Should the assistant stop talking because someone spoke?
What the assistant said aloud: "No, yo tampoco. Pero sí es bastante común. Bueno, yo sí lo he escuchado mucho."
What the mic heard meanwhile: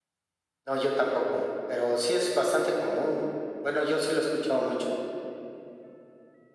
No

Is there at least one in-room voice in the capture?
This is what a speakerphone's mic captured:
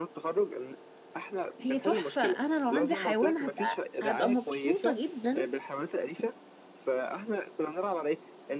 Yes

